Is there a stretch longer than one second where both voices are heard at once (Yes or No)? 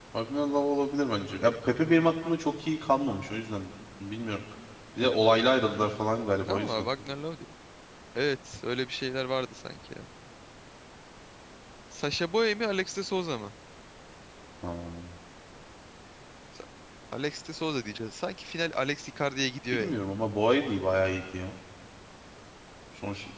No